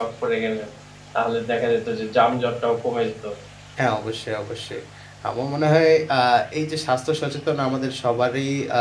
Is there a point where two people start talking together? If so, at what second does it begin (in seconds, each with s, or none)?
none